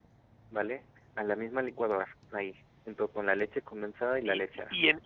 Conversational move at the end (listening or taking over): taking over